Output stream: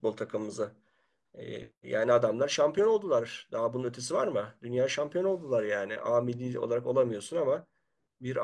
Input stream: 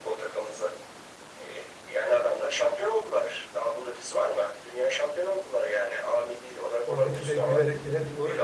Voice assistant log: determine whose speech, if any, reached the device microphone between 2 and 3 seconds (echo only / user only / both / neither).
echo only